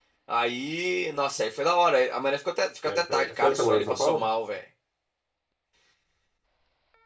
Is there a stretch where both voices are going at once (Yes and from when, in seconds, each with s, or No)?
Yes, from 2.9 s